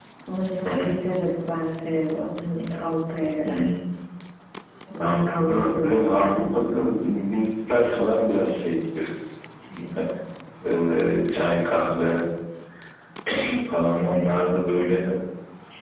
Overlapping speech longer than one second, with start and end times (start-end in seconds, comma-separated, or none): 5.0-6.4